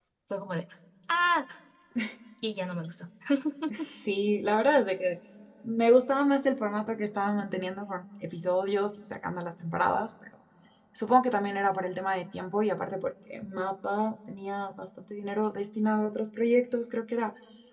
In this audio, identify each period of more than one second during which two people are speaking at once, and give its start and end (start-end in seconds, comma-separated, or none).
none